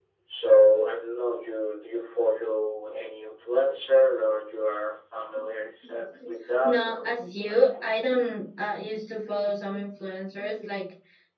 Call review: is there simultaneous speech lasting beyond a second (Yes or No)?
Yes